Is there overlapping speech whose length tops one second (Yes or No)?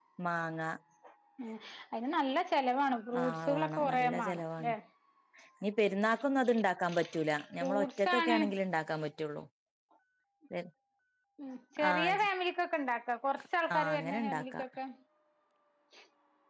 Yes